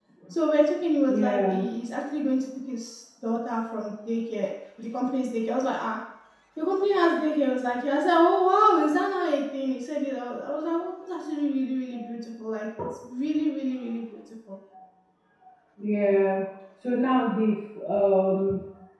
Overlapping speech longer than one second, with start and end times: none

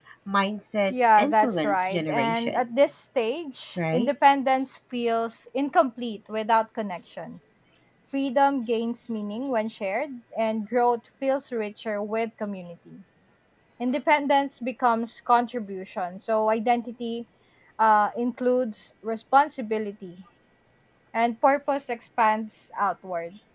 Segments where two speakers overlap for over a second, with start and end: 0.9-2.9

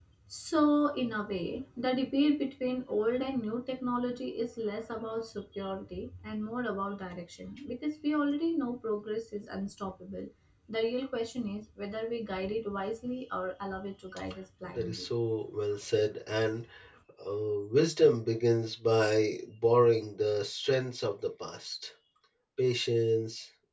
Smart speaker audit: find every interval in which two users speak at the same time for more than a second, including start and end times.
none

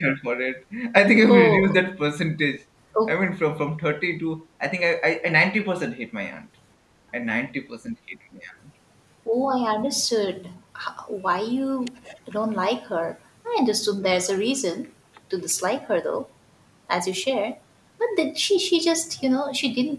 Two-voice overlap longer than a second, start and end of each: none

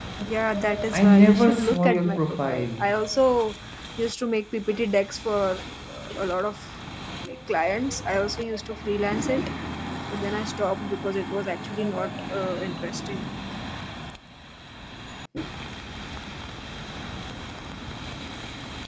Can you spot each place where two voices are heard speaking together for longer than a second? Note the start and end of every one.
0.9-2.9

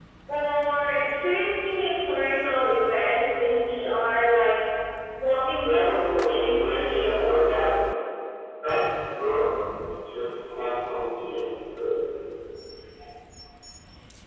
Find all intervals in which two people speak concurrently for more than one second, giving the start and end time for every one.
5.6-7.4

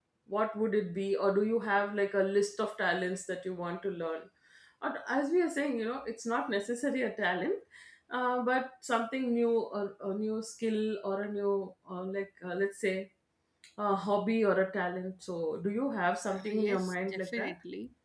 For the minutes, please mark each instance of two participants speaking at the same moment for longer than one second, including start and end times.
16.2-17.5

